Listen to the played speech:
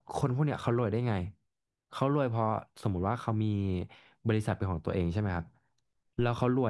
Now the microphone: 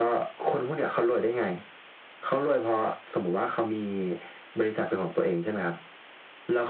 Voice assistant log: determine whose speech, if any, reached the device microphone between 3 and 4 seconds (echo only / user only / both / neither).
echo only